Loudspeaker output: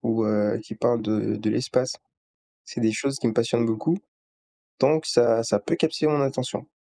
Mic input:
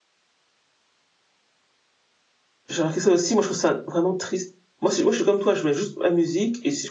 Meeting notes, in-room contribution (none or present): present